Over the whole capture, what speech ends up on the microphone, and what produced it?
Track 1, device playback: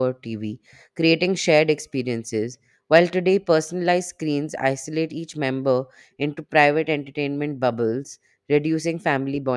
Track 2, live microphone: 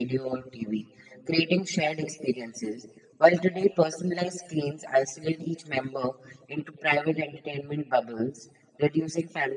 echo only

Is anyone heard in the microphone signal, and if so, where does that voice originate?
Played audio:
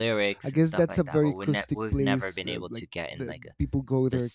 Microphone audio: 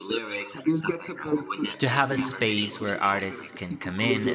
both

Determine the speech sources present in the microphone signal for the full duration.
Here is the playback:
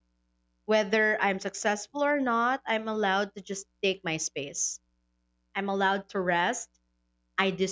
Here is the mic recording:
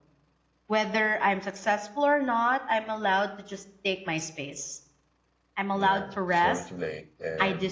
both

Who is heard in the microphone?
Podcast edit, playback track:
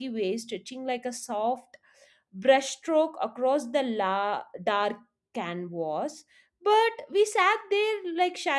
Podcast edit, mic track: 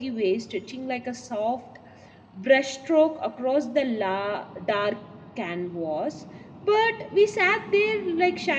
echo only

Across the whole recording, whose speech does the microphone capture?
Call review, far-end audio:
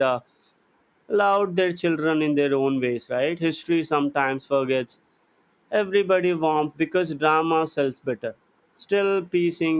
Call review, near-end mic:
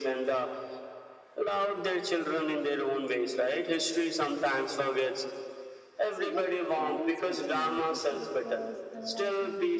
both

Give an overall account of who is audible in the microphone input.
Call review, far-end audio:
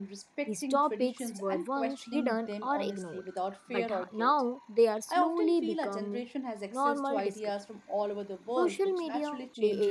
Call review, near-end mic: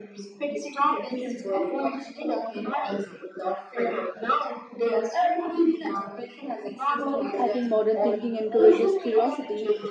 both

